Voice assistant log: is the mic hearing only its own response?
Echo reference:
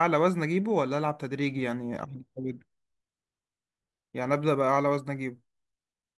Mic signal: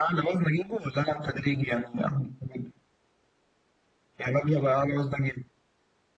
Yes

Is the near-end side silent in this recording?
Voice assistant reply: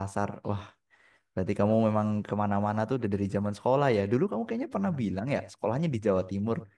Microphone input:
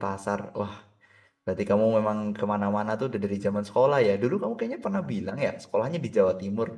Yes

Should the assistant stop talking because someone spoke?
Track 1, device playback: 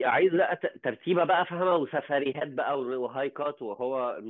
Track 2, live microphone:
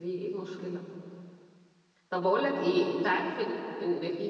Yes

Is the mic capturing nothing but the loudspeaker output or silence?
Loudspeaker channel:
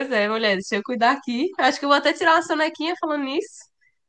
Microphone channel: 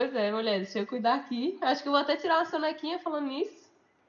Yes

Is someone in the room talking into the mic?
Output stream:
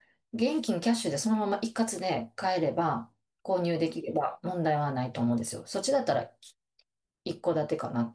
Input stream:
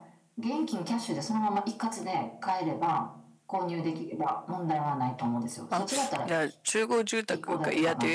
Yes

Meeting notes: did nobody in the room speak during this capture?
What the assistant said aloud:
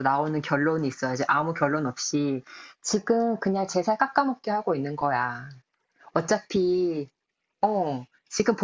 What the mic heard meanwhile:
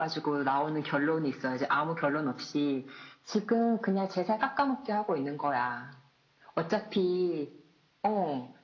Yes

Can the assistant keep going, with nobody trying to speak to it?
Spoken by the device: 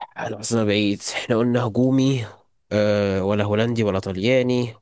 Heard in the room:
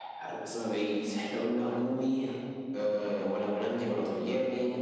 Yes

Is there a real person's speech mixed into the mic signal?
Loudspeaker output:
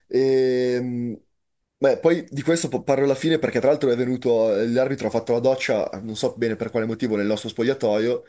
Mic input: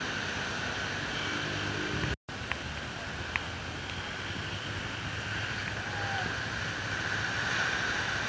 No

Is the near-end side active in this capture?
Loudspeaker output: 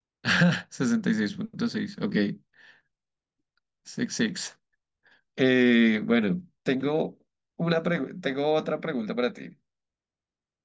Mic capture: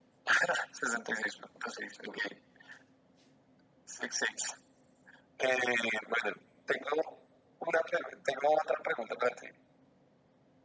No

